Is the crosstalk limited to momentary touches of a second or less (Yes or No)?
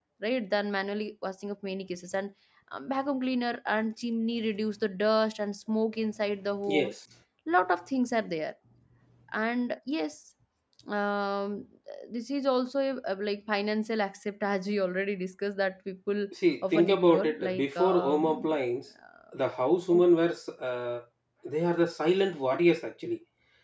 No